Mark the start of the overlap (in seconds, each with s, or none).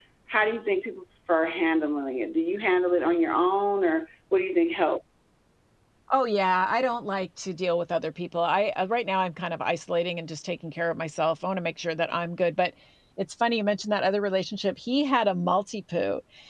none